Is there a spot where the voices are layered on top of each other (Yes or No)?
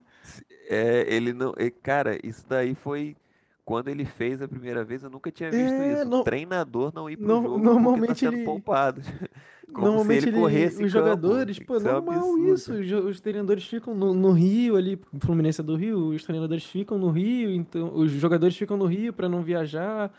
Yes